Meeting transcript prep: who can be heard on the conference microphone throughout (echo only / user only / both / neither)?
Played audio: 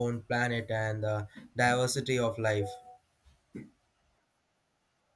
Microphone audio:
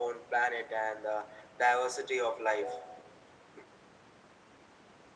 echo only